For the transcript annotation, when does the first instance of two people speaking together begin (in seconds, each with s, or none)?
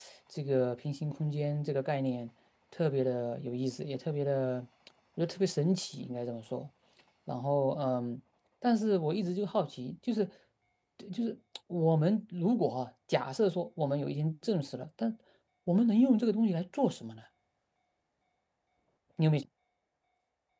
none